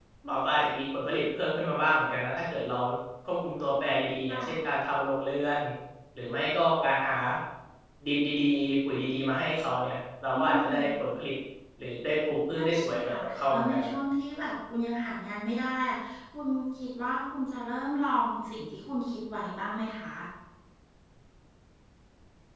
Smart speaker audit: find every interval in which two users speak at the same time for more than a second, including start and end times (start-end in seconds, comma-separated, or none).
12.6-13.9